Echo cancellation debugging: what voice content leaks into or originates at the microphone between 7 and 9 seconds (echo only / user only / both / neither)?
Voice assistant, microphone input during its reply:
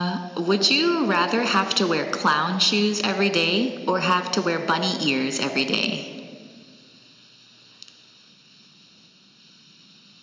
neither